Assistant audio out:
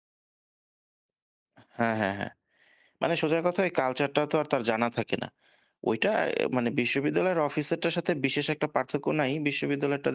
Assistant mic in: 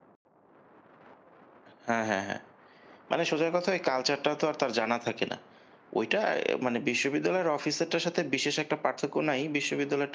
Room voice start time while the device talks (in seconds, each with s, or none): none